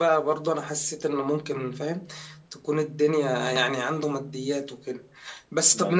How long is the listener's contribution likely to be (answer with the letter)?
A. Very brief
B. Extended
A